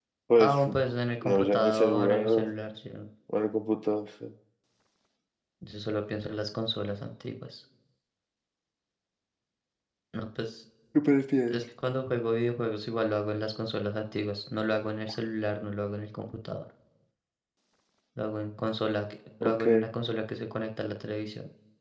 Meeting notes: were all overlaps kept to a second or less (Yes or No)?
No